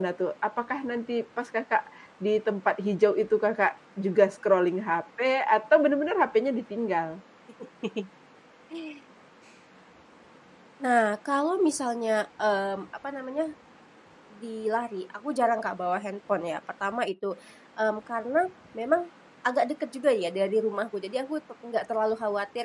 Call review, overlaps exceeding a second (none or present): none